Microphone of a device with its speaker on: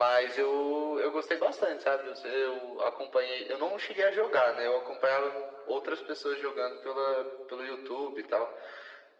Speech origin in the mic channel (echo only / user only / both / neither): echo only